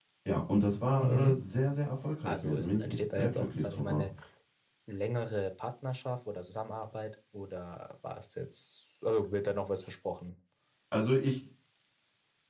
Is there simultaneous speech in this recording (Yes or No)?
Yes